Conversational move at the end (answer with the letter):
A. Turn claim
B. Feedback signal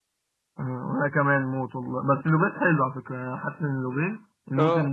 A